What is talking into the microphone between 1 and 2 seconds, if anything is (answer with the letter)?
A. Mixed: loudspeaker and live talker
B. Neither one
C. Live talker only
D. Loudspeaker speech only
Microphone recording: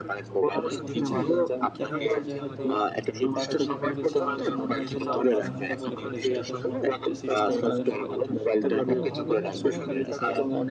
A